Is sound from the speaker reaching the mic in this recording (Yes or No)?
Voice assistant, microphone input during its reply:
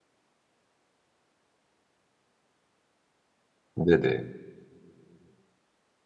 No